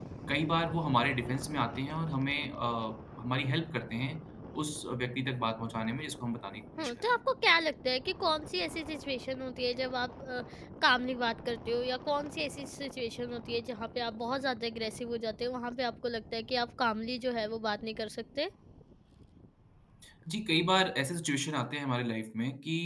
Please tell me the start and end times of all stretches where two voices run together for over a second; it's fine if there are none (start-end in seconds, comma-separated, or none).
none